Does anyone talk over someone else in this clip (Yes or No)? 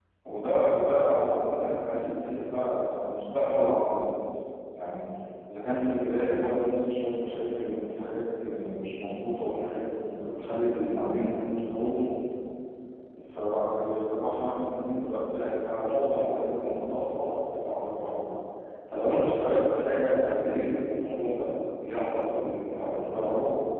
No